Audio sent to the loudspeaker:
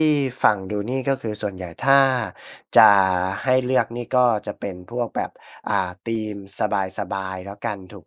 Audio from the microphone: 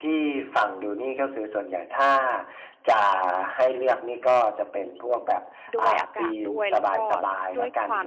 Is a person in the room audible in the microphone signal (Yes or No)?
Yes